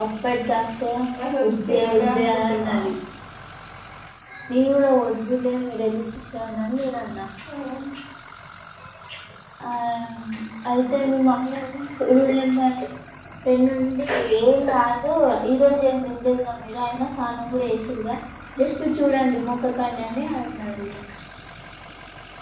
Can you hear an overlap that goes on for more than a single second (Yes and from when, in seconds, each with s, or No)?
Yes, from 1.4 s